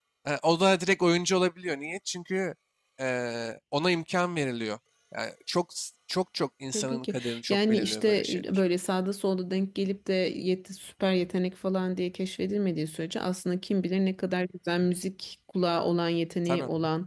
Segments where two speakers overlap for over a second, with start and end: 6.7-8.4

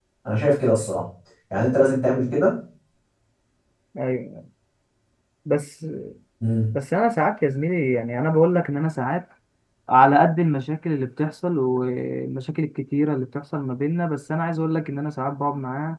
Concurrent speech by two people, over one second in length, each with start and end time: none

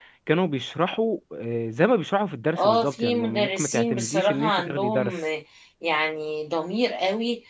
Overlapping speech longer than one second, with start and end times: 2.6-5.2

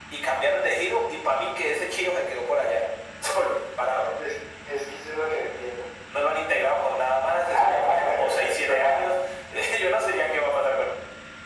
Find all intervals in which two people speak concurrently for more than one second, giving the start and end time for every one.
7.5-9.0

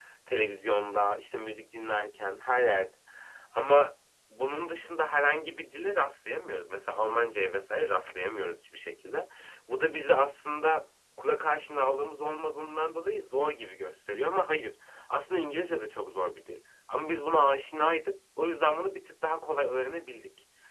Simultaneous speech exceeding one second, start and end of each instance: none

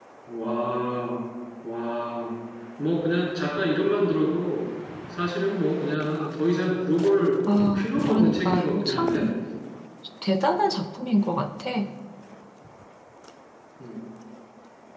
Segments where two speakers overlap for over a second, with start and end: 7.7-9.3

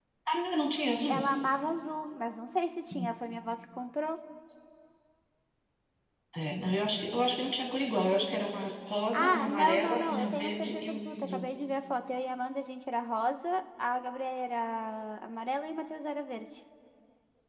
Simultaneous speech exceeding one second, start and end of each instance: 9.1-11.4

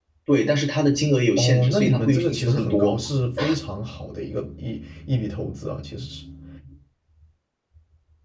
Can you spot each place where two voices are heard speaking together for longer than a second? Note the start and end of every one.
1.4-3.0

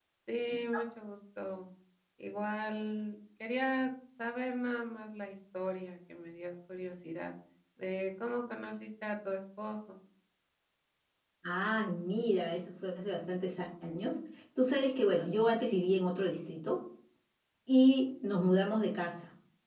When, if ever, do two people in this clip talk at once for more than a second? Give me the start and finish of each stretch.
none

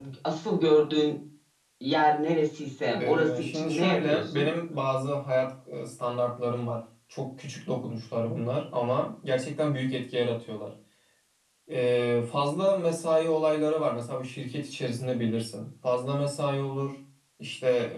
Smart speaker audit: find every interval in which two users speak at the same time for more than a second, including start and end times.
2.9-4.5

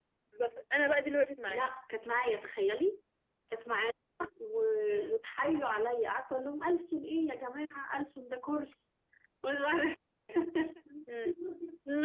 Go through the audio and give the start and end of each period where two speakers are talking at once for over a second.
none

